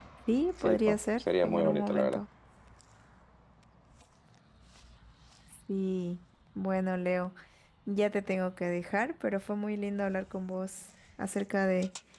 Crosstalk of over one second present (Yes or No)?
Yes